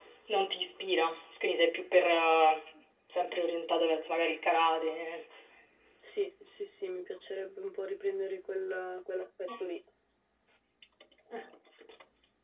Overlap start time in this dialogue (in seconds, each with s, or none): none